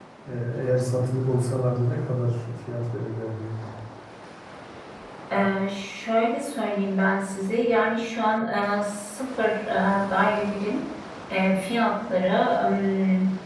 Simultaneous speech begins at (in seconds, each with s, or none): none